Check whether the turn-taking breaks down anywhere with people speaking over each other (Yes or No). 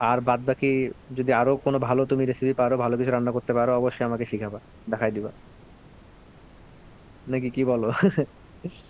No